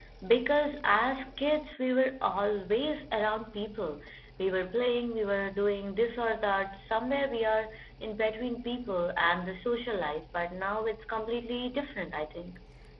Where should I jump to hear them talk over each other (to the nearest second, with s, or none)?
none